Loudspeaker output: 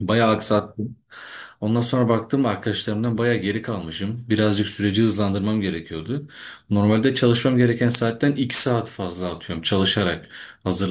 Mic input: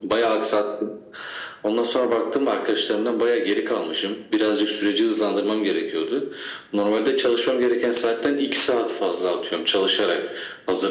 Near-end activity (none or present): none